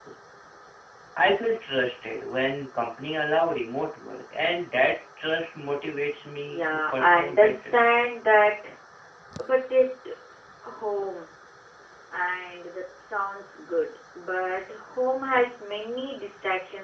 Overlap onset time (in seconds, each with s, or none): 6.4 s